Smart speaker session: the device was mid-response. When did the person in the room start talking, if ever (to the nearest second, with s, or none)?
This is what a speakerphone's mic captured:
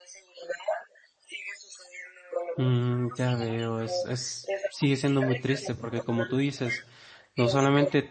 3 s